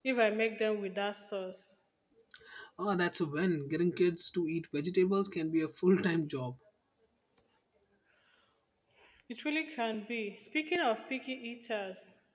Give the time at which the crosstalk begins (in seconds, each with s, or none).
none